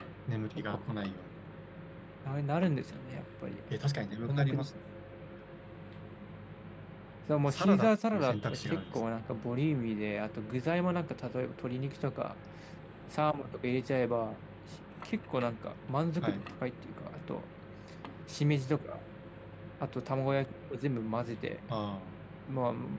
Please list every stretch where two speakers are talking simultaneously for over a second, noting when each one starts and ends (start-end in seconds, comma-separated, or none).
7.5-9.0